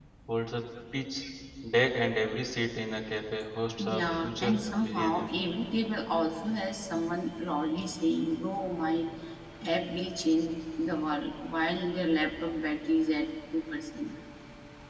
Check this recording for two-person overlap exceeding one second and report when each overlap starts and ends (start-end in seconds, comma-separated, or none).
3.8-5.3